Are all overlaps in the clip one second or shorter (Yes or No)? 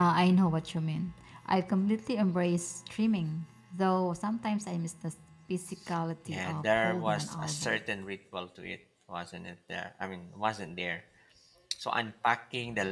No